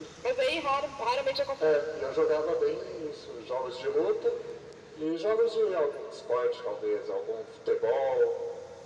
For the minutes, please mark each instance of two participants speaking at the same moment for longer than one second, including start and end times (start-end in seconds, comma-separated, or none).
none